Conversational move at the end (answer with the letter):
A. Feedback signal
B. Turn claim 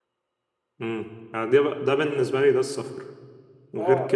B